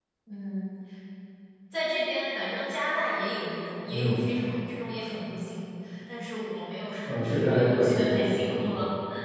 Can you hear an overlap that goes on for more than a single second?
Yes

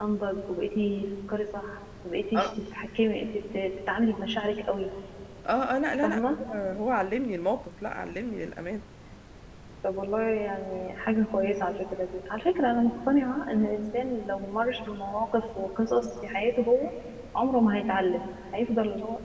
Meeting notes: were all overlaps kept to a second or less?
Yes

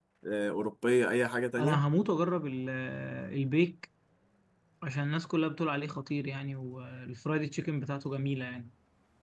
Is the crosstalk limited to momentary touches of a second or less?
Yes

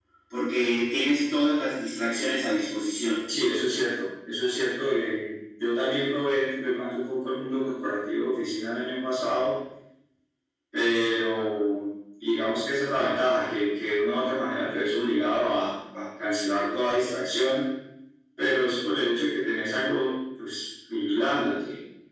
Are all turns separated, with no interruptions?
Yes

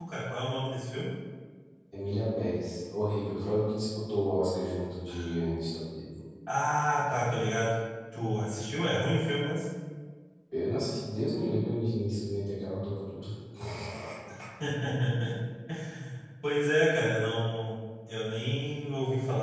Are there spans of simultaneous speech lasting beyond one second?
No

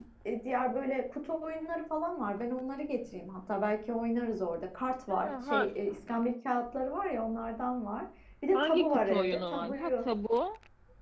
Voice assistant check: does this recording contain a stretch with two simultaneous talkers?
Yes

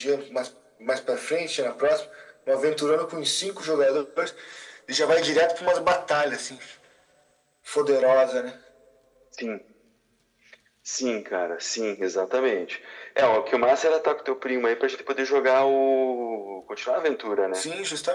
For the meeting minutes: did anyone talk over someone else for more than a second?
No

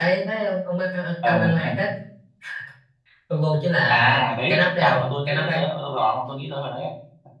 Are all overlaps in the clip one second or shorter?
No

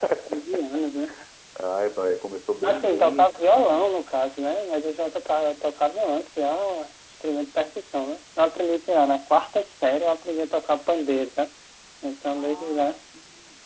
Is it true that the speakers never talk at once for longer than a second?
No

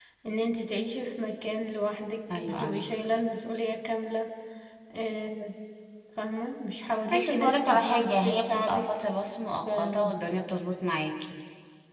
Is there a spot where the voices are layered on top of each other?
Yes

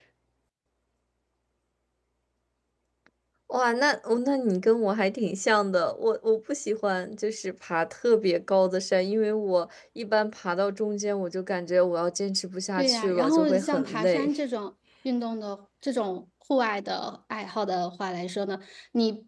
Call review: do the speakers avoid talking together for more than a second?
No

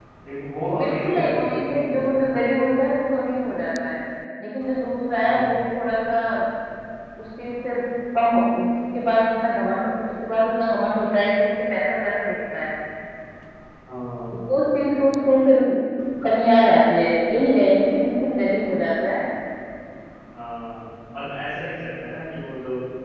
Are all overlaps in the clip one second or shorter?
No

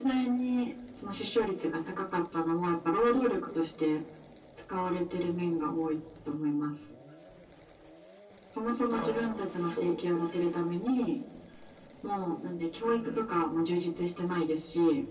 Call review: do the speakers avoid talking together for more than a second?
No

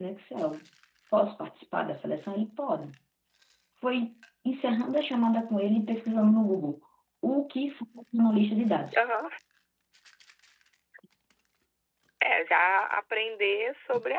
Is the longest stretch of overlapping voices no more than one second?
Yes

